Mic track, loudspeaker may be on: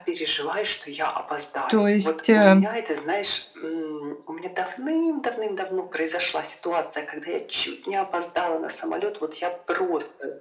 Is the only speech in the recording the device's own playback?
No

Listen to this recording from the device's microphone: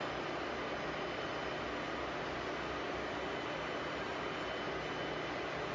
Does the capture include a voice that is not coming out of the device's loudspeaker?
No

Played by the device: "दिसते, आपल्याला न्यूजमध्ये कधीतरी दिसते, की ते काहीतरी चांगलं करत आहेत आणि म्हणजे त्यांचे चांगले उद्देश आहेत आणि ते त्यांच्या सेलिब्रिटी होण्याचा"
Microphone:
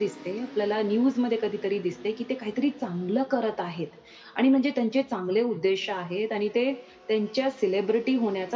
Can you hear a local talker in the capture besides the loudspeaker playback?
No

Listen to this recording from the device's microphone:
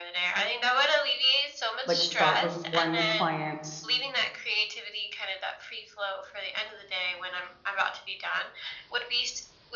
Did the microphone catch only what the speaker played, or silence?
No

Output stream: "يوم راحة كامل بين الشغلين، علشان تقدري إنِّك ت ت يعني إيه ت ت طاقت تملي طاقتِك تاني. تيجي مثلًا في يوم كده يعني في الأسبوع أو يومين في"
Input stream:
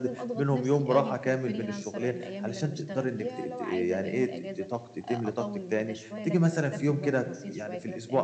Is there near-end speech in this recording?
Yes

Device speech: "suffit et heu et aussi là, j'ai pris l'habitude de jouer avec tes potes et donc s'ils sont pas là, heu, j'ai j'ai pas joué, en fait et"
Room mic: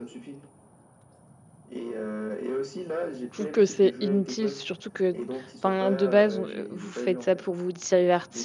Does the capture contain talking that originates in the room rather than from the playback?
Yes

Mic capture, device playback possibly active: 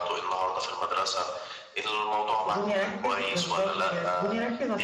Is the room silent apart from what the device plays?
No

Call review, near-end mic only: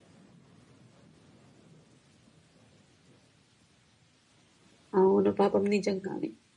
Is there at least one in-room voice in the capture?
Yes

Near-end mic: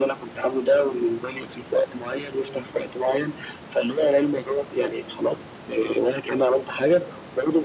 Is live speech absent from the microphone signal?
Yes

